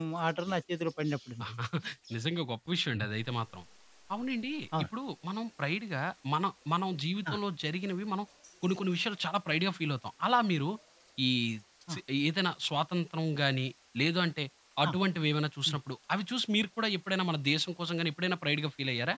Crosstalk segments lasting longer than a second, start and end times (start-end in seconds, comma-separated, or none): none